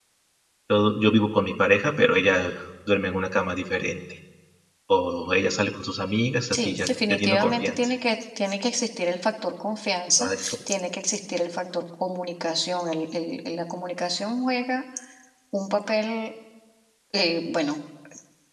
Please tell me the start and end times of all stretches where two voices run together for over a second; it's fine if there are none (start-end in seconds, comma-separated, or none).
6.5-7.8